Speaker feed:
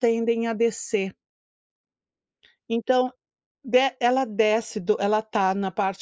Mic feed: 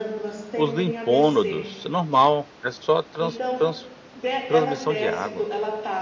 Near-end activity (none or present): present